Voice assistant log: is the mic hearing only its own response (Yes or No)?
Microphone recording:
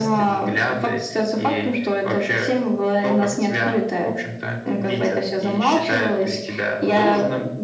Yes